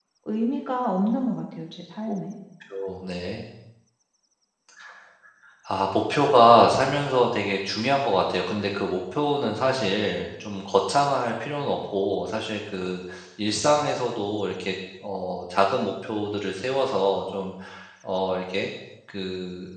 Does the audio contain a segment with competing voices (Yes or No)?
No